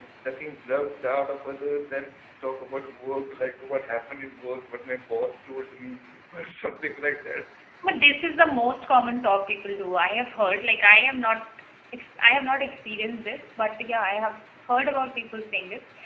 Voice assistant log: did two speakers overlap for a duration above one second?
No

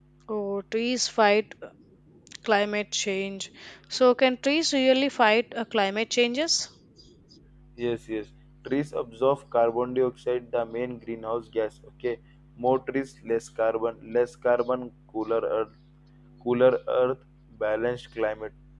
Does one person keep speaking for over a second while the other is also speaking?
No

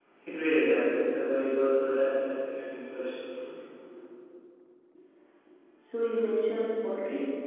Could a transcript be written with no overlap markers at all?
Yes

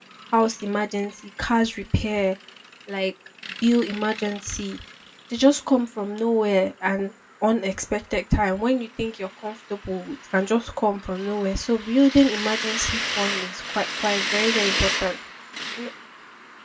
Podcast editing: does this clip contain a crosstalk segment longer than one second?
No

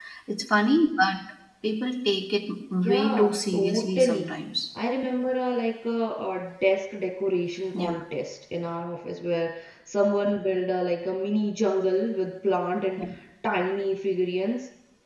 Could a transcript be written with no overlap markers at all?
No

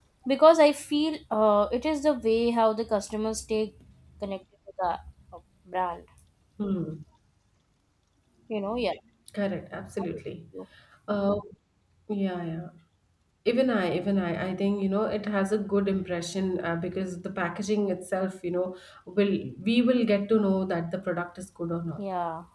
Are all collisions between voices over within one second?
Yes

